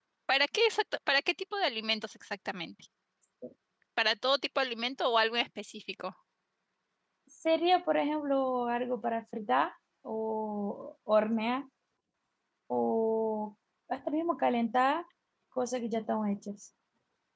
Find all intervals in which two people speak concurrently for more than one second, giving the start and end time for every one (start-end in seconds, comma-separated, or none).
none